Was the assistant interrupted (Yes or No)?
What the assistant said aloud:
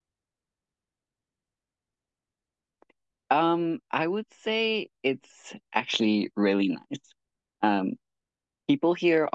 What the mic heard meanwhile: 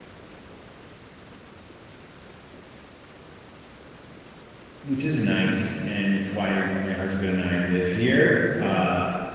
Yes